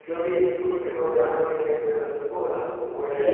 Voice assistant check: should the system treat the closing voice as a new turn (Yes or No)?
Yes